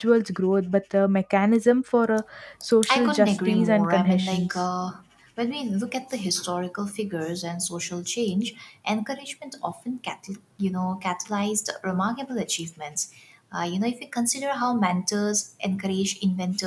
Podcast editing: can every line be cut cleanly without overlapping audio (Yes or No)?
No